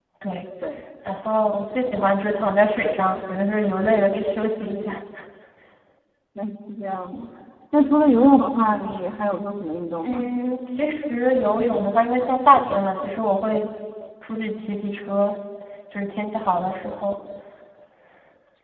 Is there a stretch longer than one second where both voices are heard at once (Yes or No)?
No